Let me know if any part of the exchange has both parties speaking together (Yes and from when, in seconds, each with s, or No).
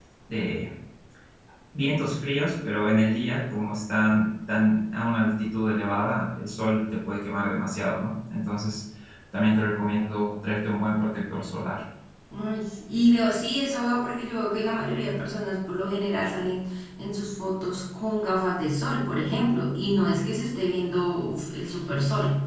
No